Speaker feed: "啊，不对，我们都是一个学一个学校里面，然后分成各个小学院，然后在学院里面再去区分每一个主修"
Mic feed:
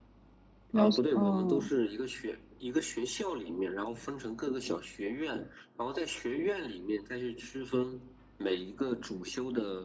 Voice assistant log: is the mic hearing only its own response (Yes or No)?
No